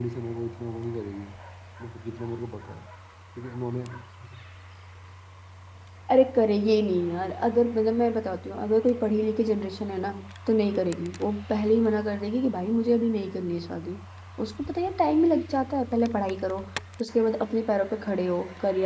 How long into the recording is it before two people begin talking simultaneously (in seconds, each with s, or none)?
none